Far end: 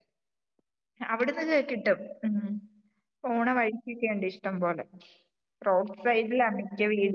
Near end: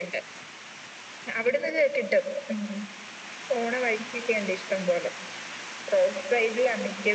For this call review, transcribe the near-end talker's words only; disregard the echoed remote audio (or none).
none